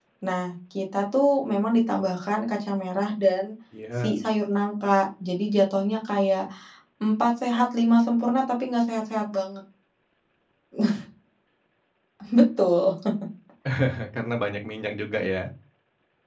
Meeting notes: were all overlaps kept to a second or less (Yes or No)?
Yes